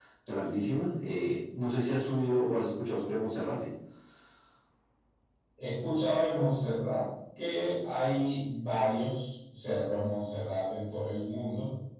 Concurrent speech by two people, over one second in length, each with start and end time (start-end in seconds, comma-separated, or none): none